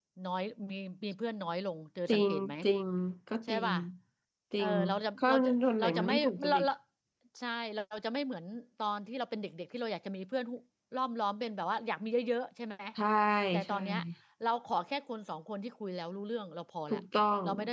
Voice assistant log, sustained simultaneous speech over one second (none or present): present